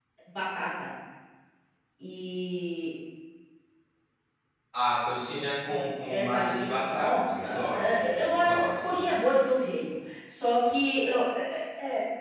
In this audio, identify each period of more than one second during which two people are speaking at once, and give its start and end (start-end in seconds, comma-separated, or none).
6.1-9.1